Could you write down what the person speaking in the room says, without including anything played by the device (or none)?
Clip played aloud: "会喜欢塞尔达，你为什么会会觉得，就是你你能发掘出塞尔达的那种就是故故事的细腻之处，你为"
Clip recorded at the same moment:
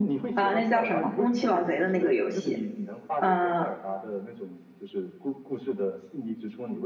啊、呃那叫什么《宫崎老贼》的那个游戏，呃，